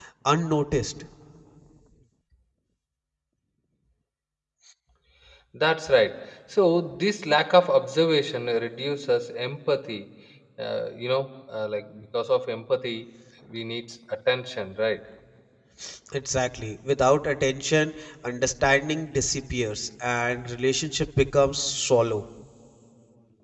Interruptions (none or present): none